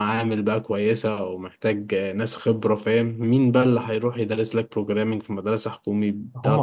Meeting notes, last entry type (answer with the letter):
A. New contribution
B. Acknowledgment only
A